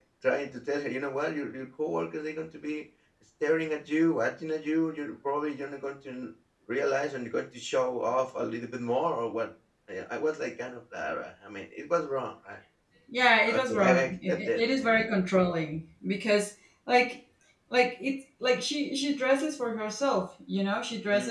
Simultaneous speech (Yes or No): Yes